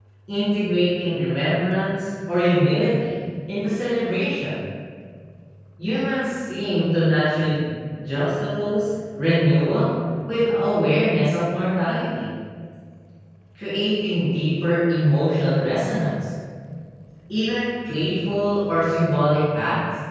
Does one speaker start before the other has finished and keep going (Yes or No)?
No